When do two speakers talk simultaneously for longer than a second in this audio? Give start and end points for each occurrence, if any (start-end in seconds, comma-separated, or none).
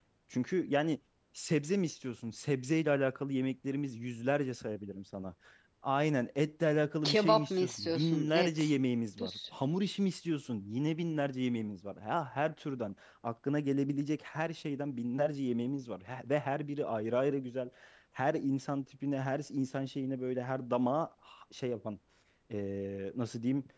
7.0-8.7